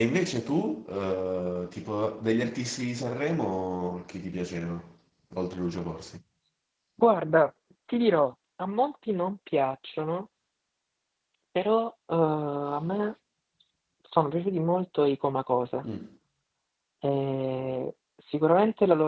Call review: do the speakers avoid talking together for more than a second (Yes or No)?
Yes